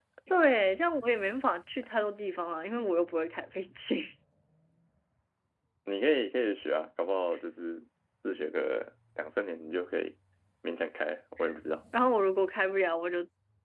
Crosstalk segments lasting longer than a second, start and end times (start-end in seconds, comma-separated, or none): none